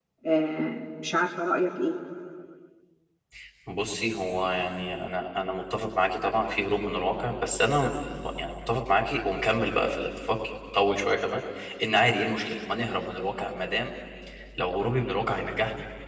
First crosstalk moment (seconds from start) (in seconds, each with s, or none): none